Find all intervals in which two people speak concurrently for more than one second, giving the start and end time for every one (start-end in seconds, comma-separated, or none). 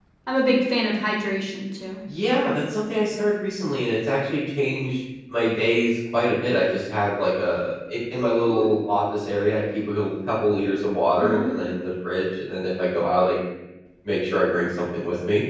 none